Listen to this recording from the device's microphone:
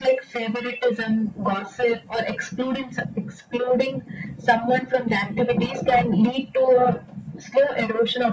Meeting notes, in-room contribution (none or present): none